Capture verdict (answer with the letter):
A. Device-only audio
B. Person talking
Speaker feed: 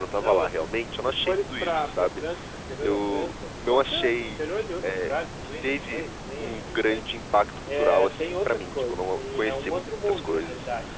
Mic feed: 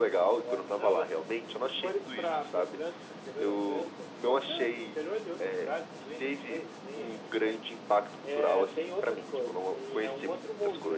A